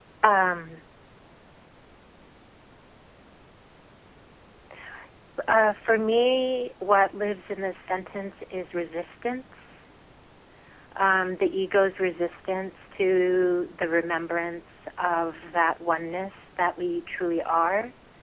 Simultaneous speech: No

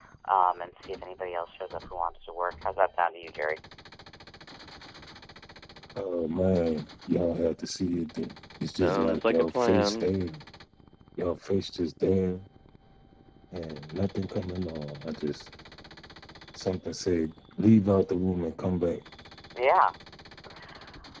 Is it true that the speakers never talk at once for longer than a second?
No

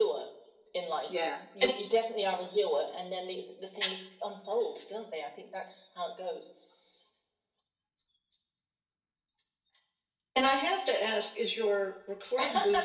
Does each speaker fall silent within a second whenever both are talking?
Yes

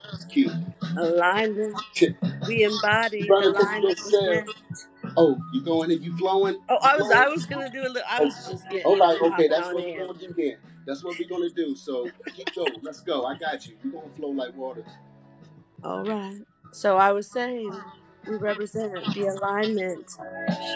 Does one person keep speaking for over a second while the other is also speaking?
Yes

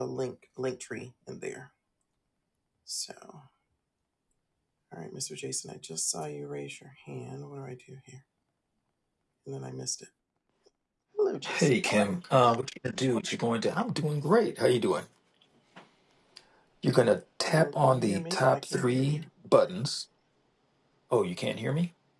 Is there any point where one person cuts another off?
Yes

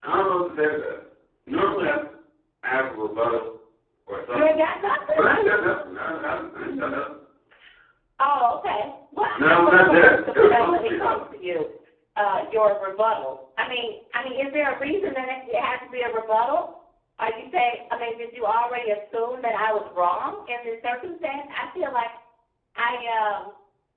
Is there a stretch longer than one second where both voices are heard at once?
Yes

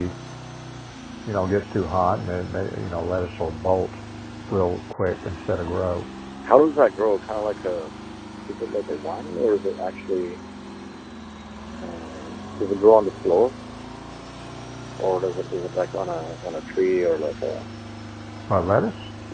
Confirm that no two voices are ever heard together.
Yes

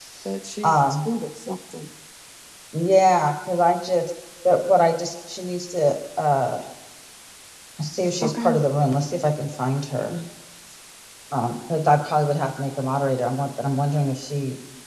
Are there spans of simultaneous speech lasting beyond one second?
No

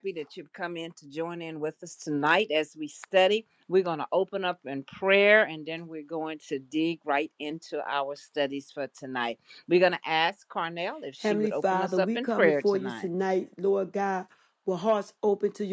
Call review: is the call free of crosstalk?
No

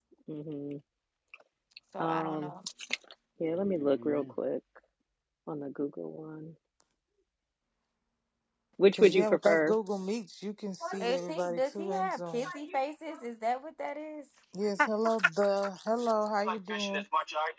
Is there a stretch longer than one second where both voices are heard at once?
Yes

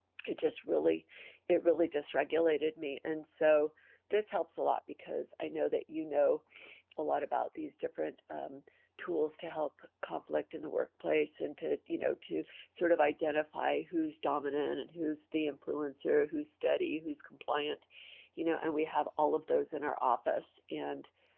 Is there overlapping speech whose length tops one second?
No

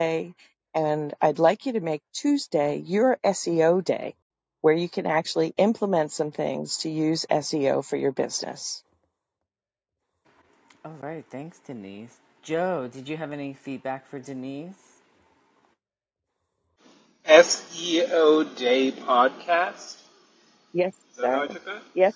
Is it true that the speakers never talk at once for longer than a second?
Yes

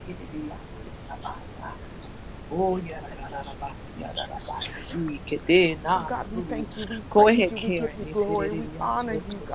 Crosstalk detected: Yes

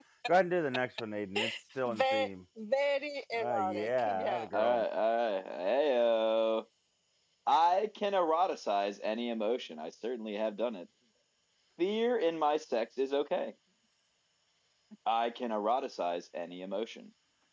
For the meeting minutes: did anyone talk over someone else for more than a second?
Yes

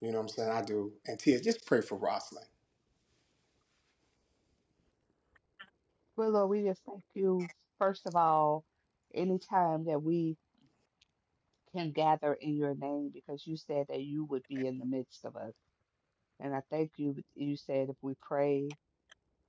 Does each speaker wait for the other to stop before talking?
Yes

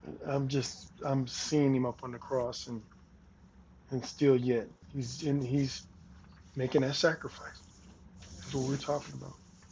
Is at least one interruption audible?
No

